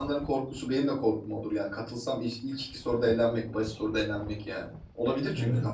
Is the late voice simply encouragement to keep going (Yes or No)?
No